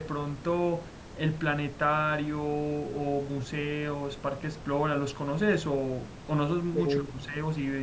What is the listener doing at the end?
listening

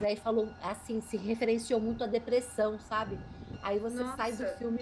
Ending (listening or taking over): listening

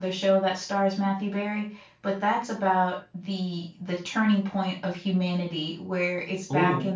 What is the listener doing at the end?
listening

